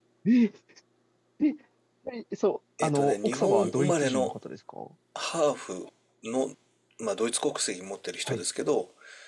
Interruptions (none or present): present